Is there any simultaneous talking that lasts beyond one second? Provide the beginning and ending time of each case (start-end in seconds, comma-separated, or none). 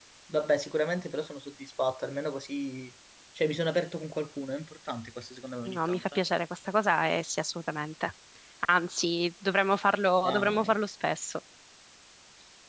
none